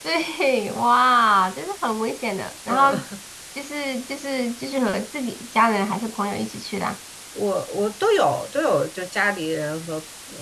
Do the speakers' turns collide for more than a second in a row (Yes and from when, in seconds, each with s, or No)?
No